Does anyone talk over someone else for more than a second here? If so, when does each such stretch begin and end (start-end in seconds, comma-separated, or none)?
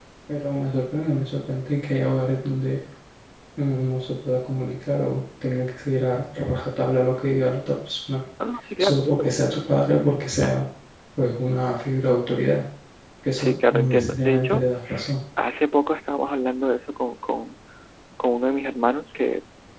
13.4-14.6